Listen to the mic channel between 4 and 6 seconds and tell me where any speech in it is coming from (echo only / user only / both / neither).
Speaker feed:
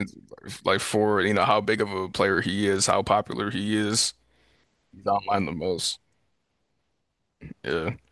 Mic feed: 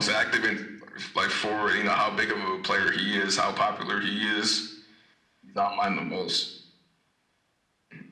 echo only